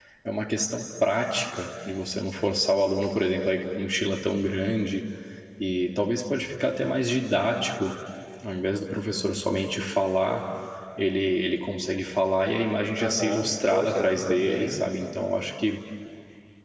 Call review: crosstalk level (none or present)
present